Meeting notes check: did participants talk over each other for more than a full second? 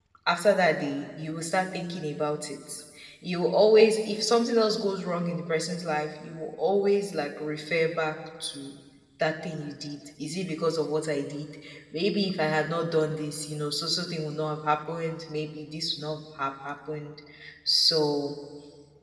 No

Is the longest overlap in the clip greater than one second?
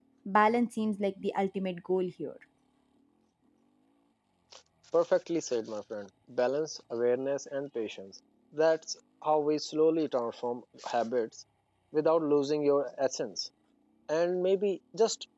No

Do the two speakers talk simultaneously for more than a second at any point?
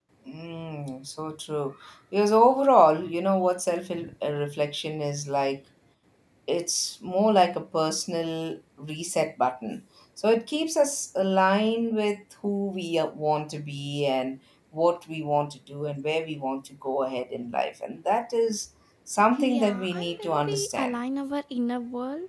Yes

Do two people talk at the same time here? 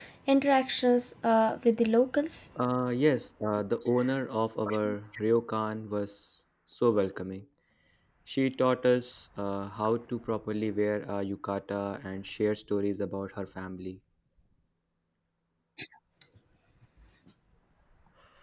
No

